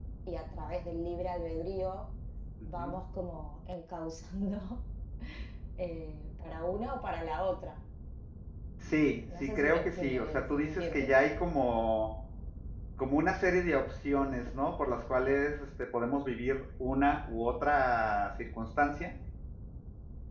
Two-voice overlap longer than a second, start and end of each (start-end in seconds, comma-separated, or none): 9.1-11.1